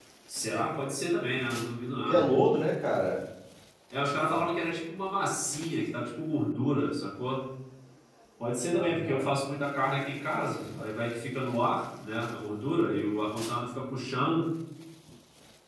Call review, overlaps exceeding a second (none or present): none